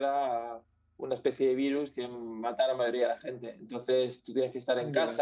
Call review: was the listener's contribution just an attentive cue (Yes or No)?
Yes